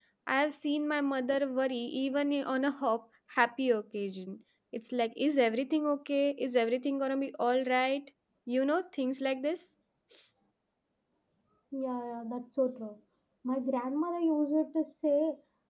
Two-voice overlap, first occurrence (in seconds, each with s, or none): none